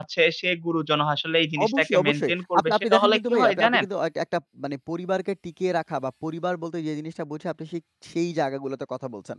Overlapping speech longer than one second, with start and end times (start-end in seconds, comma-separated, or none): 1.6-3.9